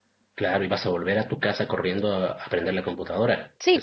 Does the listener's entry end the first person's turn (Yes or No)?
Yes